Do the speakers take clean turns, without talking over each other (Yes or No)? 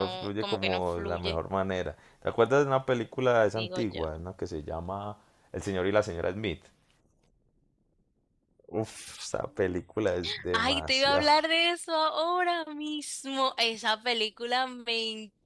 No